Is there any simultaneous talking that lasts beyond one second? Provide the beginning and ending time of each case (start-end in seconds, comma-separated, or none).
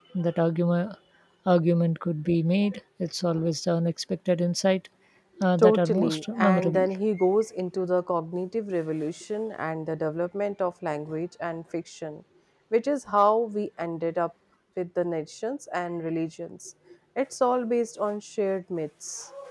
5.6-6.9